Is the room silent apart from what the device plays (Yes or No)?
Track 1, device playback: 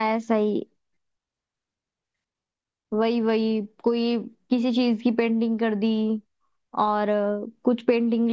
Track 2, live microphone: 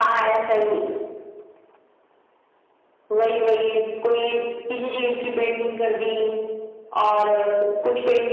Yes